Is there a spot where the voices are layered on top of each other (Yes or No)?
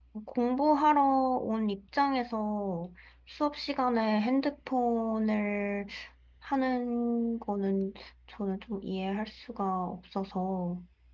No